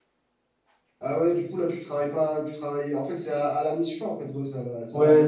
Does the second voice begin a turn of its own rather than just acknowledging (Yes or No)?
Yes